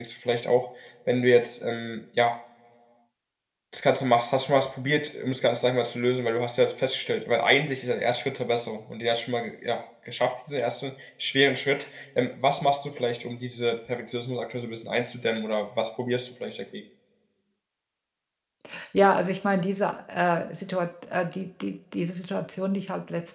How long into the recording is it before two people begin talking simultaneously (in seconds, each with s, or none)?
none